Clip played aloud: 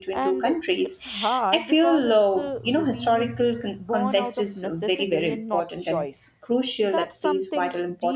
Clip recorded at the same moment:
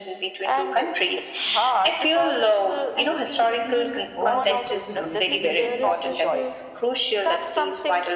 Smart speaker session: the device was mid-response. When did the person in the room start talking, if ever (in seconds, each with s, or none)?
2.9 s